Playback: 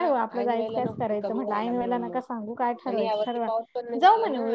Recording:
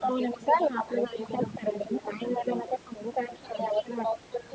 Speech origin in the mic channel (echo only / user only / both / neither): echo only